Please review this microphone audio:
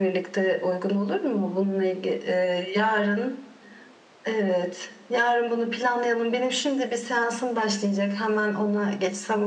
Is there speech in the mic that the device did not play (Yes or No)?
No